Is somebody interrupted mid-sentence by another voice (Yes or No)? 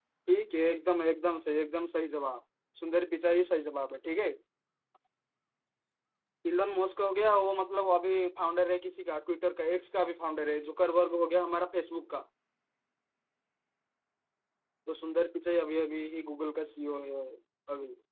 No